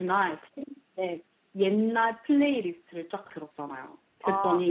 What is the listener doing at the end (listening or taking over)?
listening